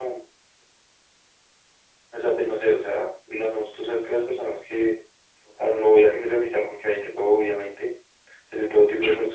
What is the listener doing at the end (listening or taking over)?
listening